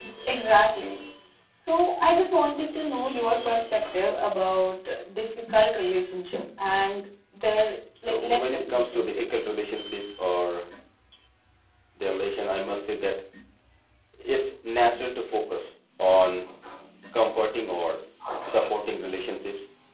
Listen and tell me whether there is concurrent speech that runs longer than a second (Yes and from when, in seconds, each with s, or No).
Yes, from 8.0 s